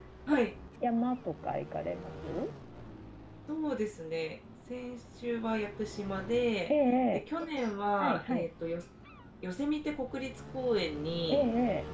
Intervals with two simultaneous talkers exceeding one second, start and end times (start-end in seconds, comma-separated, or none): none